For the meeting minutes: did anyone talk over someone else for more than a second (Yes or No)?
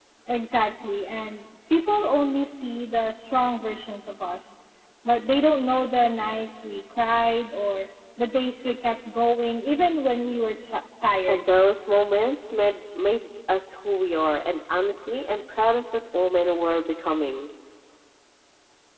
No